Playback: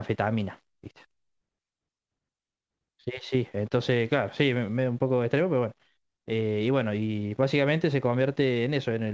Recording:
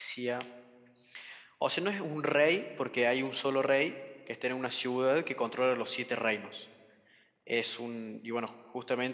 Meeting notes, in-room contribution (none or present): present